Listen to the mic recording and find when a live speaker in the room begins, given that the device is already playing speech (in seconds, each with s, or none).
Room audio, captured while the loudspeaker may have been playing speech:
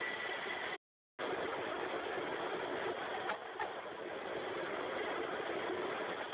none